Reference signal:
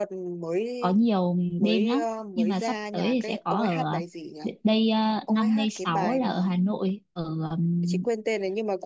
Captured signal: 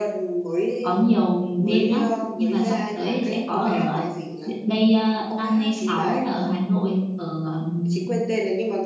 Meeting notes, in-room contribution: none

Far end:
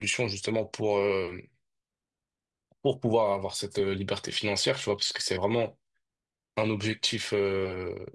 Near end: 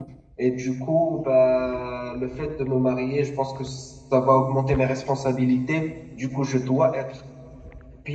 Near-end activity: present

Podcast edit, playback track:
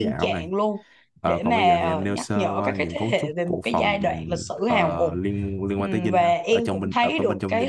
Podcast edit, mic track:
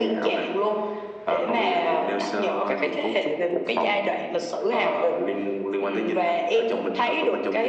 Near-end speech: none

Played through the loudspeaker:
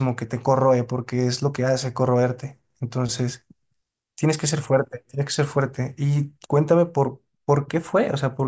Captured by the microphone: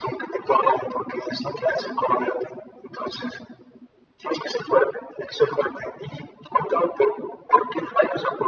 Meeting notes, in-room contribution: none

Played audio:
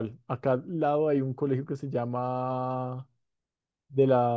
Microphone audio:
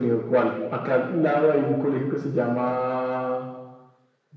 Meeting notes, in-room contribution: none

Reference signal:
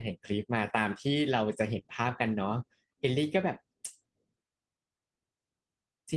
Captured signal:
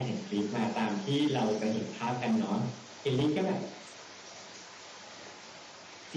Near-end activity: none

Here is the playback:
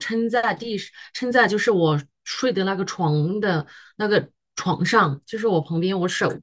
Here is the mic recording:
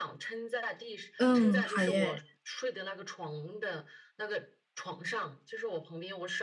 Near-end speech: present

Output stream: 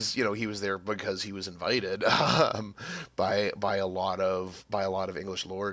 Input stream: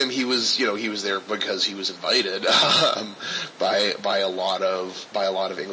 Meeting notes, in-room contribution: none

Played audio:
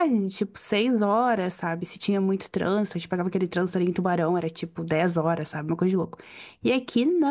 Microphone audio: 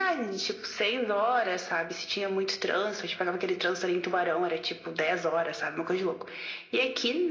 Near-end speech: none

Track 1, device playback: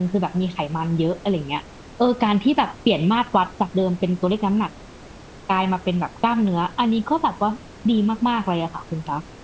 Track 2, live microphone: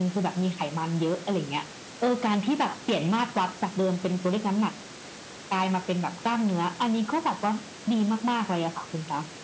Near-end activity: none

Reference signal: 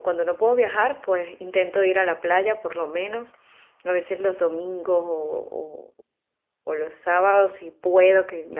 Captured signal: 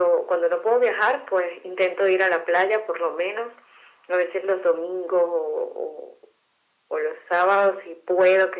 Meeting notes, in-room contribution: none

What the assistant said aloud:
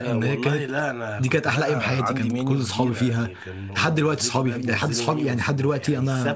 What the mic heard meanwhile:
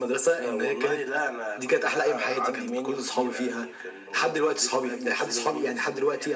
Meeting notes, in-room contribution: none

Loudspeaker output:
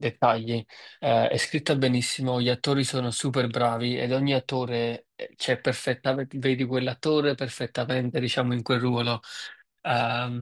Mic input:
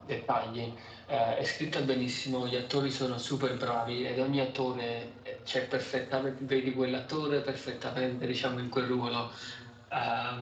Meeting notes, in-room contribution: none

